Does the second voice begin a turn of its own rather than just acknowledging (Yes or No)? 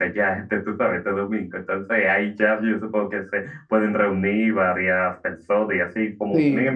No